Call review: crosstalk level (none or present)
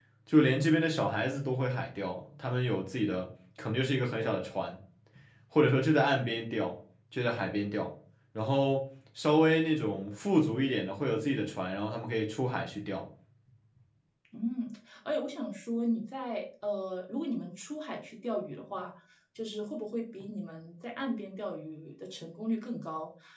none